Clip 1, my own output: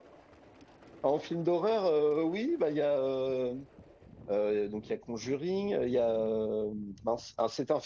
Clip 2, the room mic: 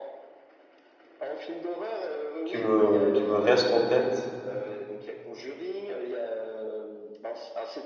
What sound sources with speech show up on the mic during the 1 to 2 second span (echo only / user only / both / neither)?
echo only